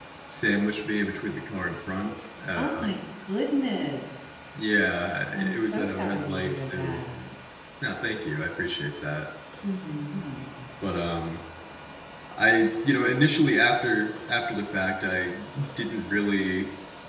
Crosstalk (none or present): present